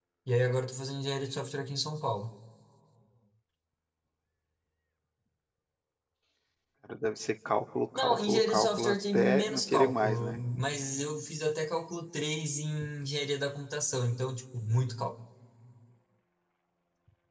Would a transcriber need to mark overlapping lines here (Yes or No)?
Yes